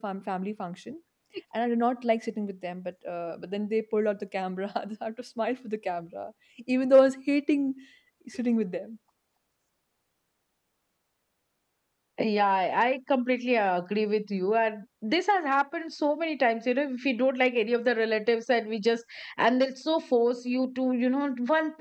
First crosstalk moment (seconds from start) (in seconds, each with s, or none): none